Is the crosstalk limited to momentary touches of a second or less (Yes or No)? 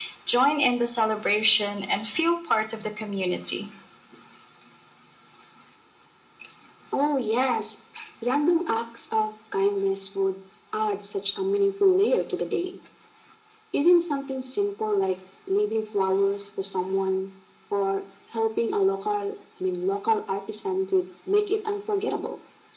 Yes